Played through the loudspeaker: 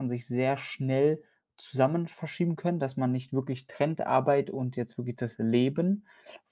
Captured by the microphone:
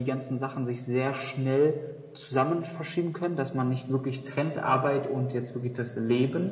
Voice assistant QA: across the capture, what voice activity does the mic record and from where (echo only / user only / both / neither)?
echo only